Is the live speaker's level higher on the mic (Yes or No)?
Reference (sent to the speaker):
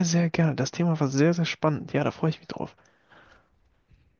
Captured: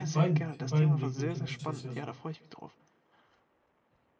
Yes